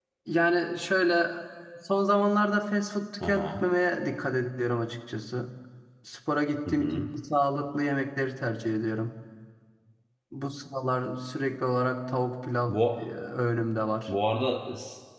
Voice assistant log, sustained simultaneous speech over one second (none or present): none